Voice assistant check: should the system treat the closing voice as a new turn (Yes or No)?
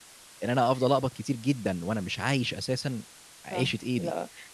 Yes